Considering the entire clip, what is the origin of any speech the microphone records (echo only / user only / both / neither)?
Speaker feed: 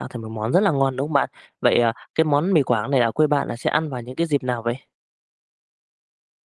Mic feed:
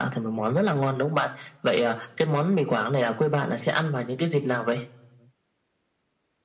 echo only